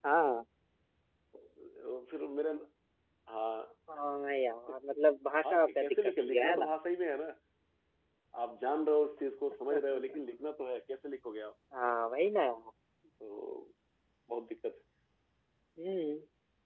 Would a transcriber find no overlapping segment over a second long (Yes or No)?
No